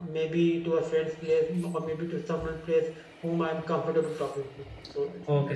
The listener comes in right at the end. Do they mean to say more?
Yes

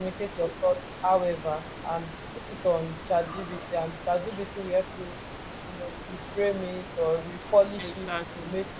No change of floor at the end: Yes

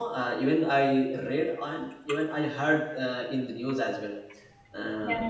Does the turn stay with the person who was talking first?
Yes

